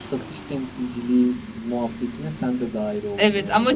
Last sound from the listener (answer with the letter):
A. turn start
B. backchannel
A